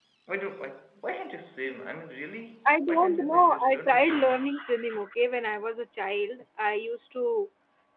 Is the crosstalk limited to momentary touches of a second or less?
No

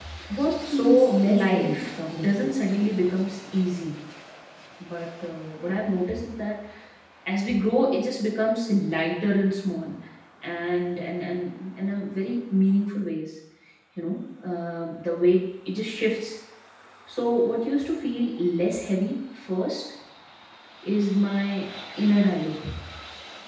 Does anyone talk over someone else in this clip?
Yes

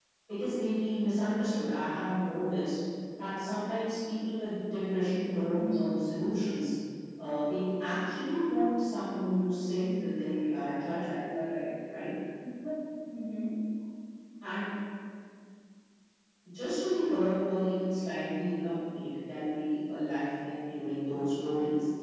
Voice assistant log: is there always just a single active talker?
No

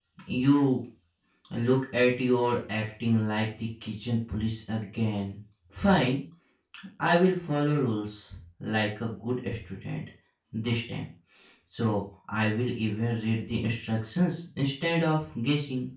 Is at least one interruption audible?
No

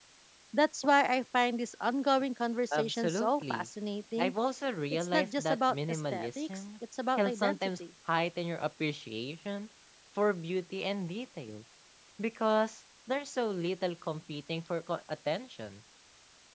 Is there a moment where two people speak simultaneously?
Yes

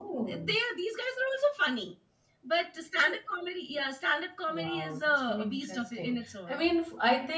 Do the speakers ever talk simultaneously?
Yes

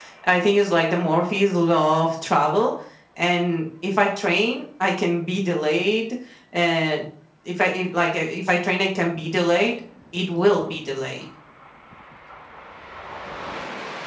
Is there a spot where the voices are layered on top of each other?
No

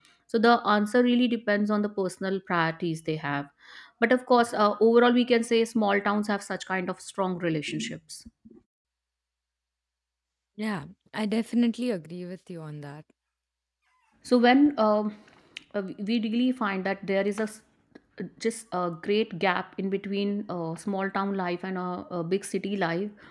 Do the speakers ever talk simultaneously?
No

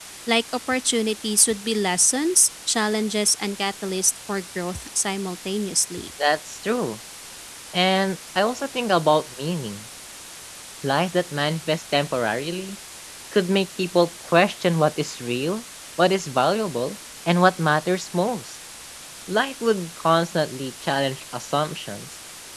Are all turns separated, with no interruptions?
Yes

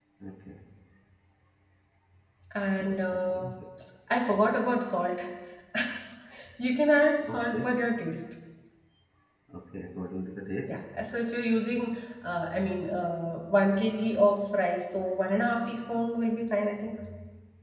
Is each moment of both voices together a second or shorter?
Yes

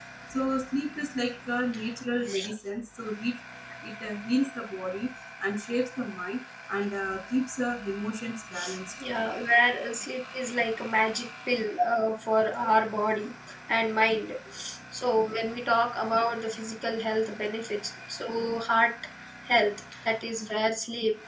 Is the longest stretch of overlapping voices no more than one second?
Yes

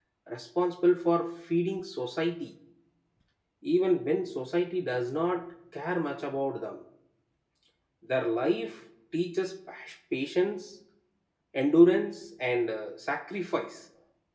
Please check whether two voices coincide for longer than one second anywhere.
No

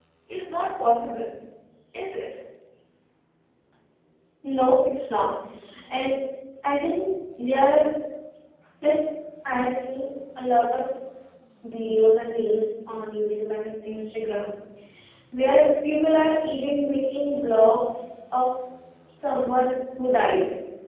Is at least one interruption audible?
No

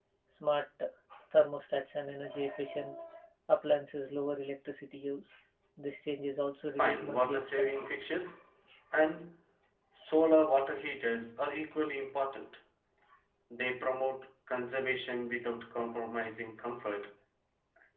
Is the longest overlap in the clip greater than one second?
Yes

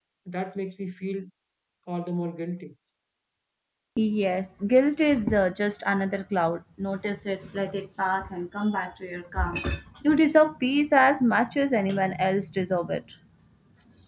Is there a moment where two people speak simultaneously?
No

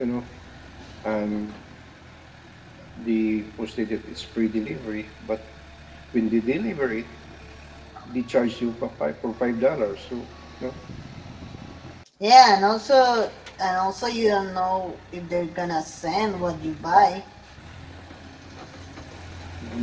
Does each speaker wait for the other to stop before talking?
Yes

